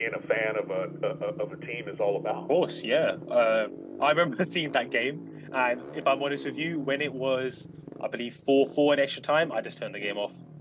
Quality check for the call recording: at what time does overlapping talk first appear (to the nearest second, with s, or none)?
none